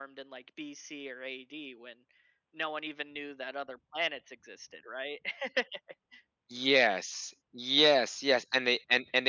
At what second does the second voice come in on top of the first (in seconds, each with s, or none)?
none